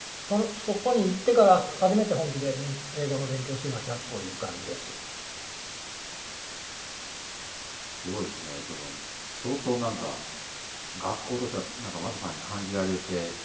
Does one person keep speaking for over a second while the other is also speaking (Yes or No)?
No